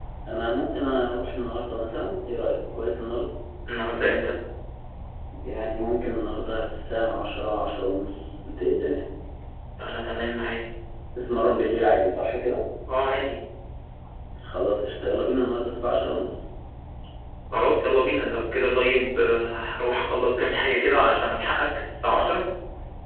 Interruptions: none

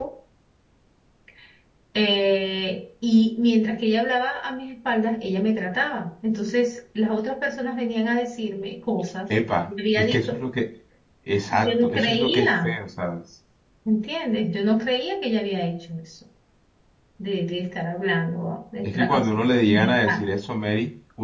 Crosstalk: present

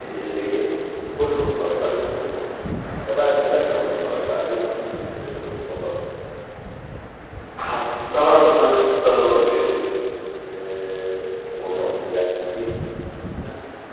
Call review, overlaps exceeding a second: none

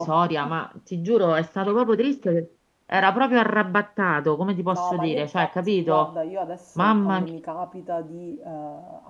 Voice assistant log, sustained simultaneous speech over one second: present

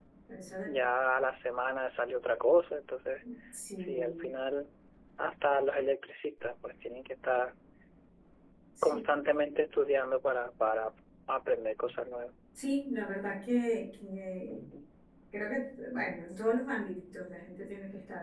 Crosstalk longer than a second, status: none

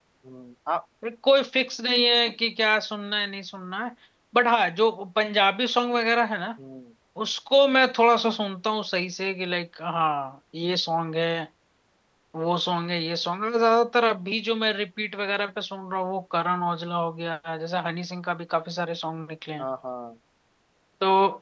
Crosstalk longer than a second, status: none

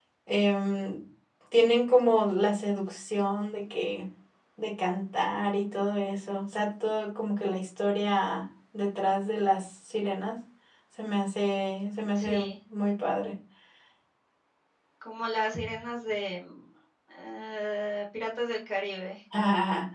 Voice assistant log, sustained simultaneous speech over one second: none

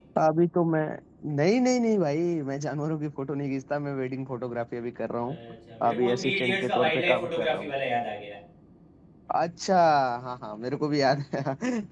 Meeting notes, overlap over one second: present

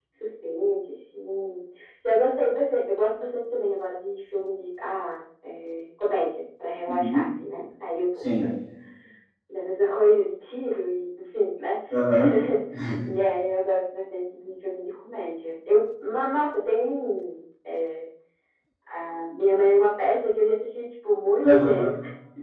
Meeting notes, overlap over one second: none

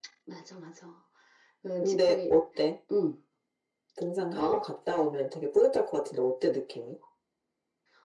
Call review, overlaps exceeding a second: none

